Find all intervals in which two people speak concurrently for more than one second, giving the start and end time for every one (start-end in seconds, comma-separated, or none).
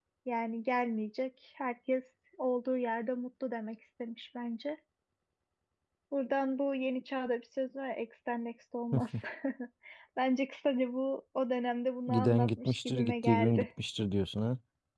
12.1-13.7